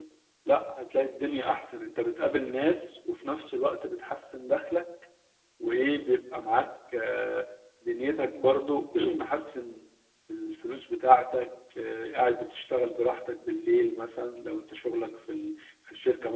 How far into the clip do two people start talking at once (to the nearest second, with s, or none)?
none